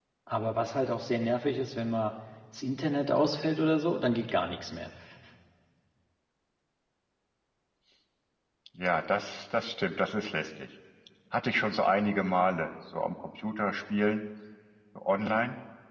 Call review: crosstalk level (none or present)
none